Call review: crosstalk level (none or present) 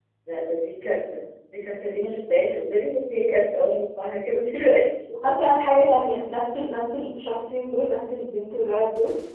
none